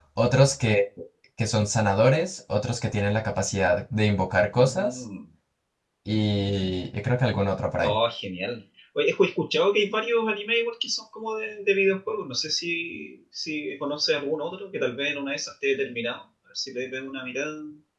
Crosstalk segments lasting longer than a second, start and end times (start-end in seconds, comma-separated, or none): none